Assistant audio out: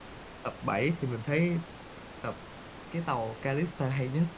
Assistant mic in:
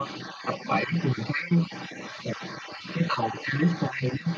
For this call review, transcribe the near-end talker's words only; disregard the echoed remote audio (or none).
none